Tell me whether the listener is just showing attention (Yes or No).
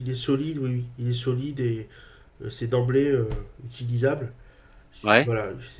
Yes